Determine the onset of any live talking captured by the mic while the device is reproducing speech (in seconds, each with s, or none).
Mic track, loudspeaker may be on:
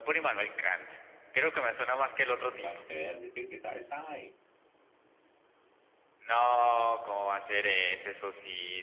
2.4 s